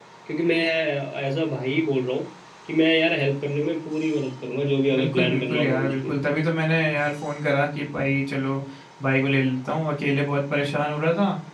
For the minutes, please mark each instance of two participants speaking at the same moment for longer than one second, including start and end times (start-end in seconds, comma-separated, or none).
4.9-6.1